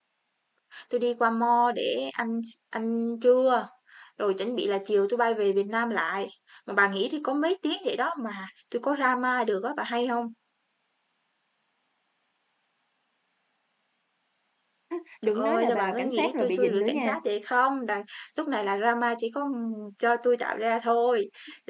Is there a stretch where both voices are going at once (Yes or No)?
Yes